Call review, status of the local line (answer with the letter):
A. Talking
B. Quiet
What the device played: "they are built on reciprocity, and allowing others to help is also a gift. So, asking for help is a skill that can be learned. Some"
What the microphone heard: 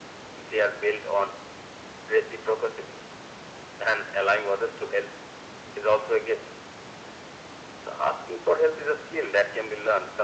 B